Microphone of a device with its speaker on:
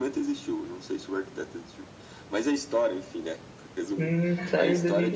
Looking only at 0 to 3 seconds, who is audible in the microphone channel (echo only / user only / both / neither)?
echo only